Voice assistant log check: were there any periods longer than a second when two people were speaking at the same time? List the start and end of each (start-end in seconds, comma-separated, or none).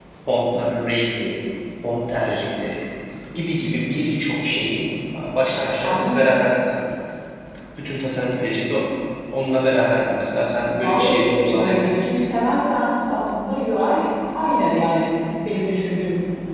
10.8-12.1